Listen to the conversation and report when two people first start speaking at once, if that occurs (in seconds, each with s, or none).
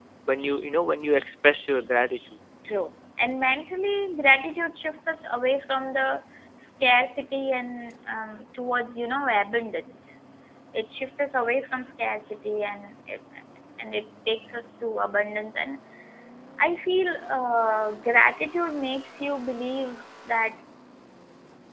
none